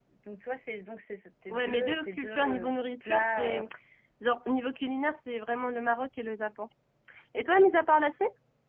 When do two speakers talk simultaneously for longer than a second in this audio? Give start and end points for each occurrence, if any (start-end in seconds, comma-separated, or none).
1.5-3.6